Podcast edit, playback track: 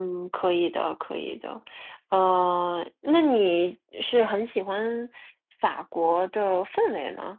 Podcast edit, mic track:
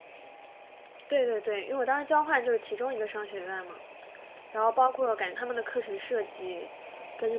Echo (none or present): none